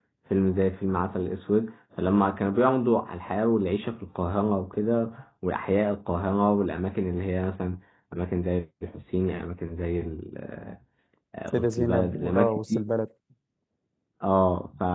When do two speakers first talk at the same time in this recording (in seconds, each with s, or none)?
11.5 s